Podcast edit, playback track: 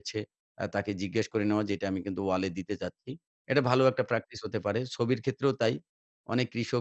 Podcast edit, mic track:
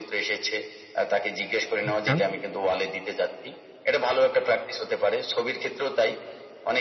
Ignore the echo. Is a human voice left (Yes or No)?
Yes